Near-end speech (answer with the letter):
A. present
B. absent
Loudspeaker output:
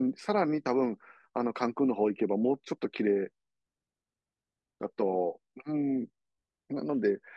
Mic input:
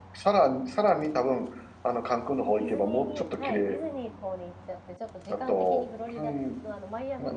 A